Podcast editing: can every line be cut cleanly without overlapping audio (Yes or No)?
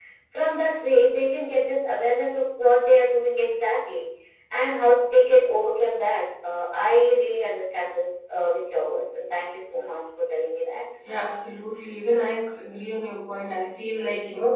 Yes